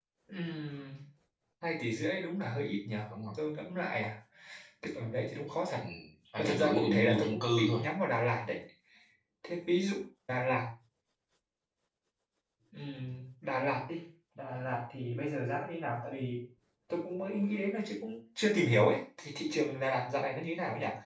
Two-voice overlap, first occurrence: 6.4 s

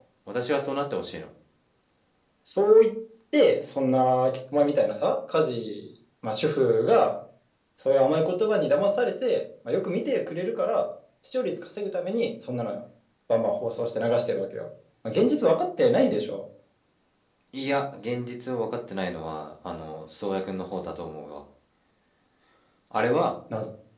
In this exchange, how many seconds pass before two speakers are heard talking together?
none

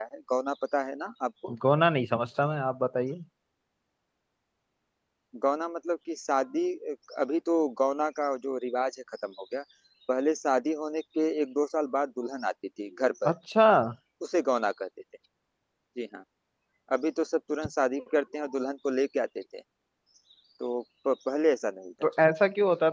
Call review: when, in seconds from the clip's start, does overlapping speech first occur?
none

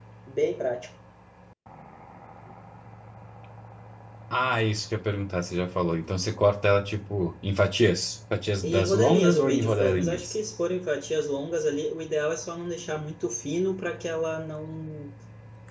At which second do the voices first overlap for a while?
8.6 s

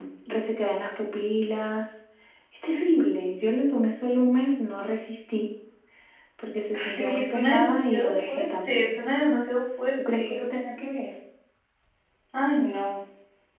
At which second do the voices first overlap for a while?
6.7 s

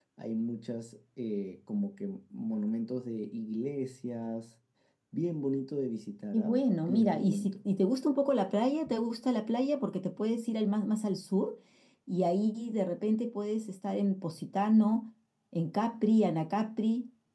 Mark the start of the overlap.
6.3 s

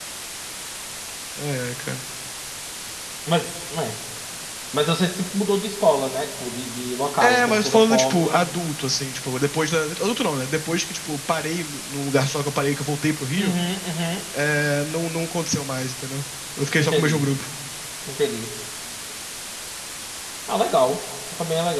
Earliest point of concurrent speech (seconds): 7.2 s

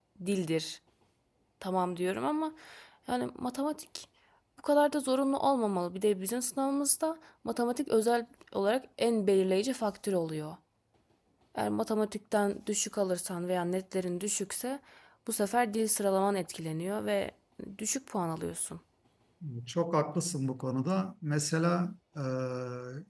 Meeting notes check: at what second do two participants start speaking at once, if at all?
none

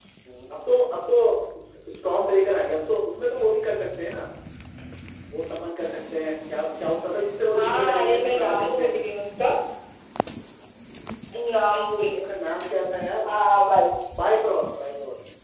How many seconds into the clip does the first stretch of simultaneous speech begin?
7.5 s

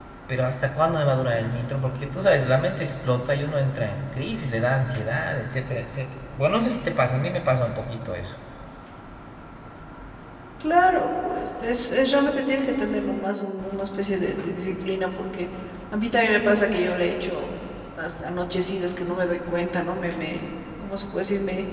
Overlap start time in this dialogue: none

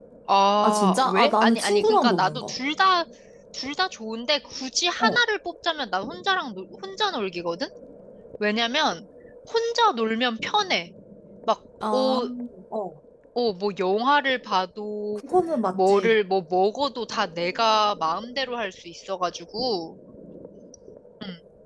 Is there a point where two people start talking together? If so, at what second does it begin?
0.6 s

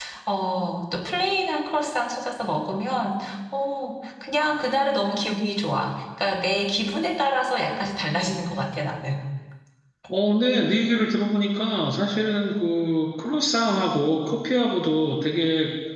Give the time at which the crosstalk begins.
none

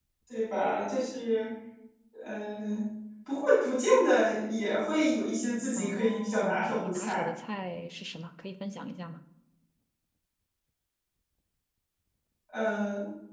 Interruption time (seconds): 5.8 s

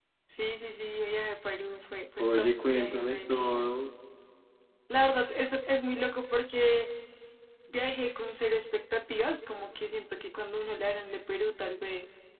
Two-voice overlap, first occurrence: 2.2 s

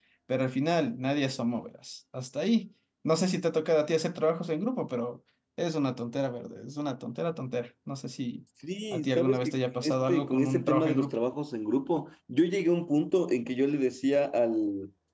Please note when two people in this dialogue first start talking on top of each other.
8.9 s

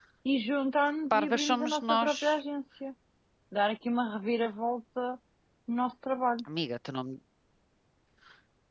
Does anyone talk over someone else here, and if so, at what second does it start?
1.1 s

